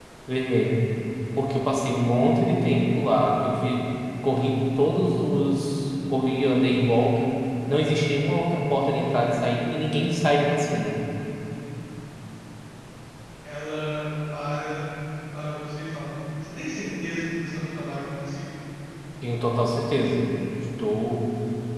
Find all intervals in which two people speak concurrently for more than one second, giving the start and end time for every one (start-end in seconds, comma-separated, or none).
none